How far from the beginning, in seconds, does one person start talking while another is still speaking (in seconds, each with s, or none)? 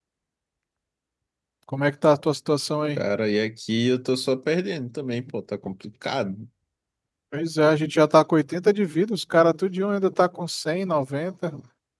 none